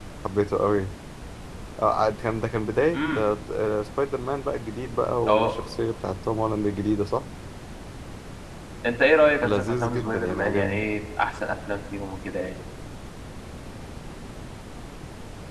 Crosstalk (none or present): present